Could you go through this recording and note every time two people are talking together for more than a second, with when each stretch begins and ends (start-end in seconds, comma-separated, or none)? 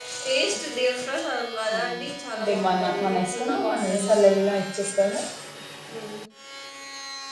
2.3-4.1